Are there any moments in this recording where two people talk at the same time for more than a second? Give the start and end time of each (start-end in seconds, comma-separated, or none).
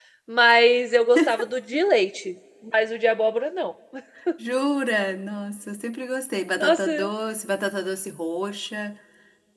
none